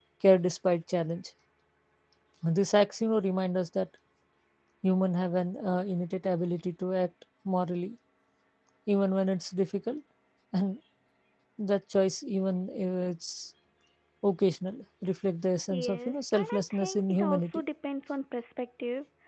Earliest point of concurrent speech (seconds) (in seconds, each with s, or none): 15.7 s